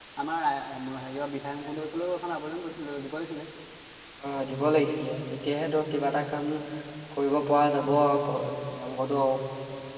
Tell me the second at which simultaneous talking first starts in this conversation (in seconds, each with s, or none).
none